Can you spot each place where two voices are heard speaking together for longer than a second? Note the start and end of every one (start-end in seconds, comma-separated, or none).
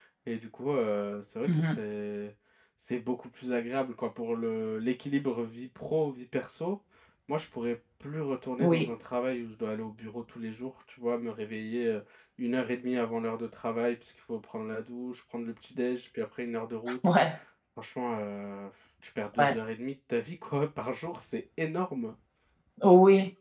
none